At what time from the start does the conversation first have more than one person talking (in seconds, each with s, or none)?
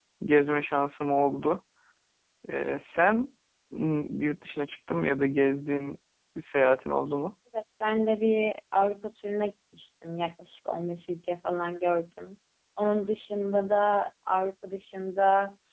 none